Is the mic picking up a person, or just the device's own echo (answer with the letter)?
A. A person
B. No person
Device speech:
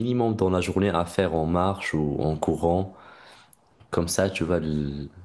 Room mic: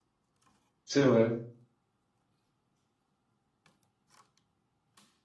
A